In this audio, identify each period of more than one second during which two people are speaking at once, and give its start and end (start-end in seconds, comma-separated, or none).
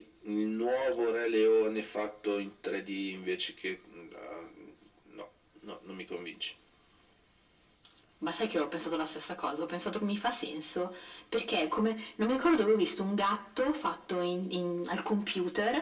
none